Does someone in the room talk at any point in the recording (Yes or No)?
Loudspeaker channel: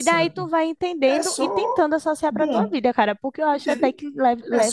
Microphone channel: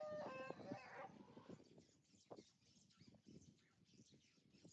No